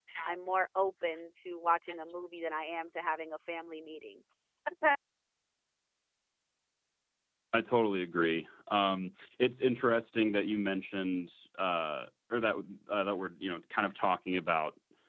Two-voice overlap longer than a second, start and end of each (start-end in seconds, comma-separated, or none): none